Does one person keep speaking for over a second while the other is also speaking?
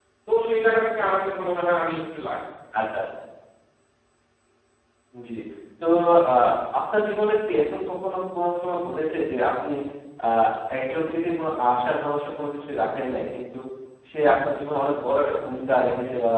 No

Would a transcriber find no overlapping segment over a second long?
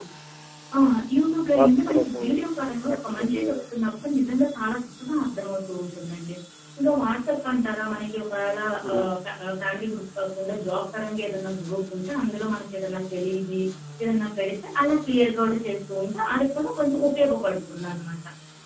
No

